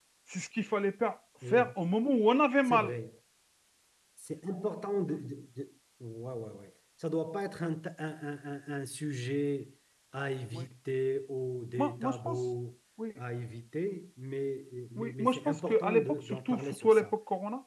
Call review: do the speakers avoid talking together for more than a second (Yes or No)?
No